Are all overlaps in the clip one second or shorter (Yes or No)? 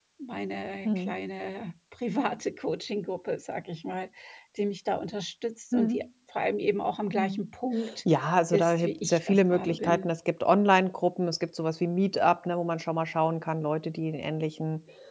No